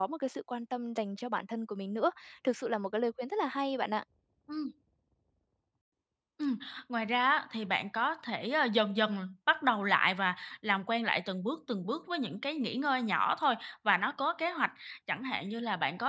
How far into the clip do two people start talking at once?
none

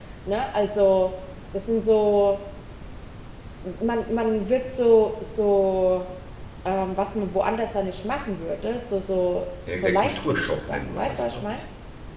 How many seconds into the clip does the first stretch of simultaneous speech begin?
9.7 s

